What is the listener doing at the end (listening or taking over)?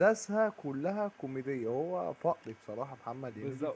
taking over